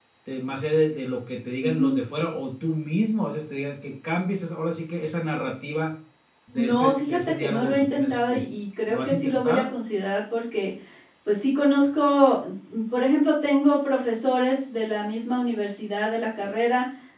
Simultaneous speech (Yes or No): Yes